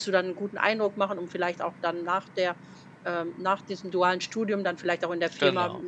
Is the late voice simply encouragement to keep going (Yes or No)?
Yes